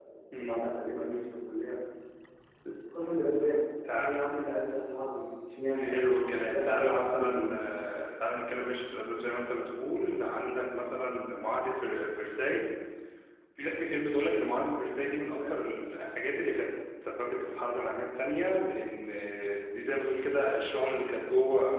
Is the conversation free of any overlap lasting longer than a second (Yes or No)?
No